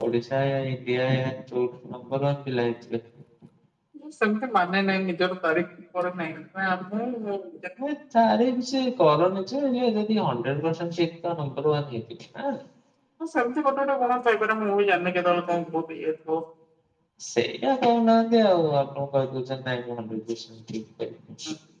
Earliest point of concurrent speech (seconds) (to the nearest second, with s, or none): none